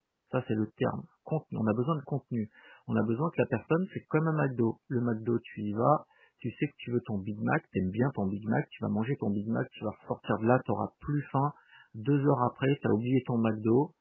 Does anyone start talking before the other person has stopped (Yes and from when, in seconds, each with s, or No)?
No